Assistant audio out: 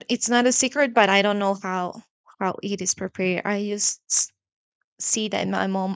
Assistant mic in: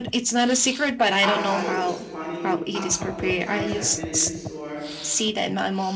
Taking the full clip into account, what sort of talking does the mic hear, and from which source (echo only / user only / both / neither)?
both